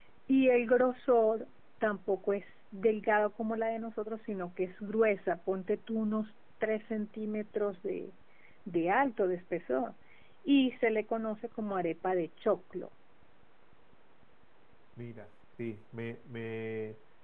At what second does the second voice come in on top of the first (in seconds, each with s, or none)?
none